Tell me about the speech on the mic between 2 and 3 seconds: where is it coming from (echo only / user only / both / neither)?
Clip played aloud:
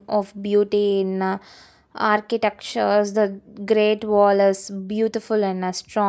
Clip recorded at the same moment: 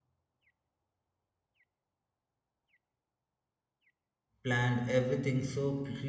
neither